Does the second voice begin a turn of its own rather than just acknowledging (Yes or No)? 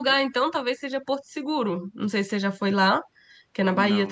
No